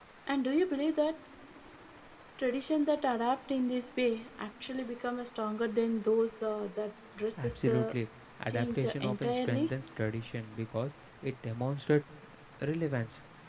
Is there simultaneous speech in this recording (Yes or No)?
Yes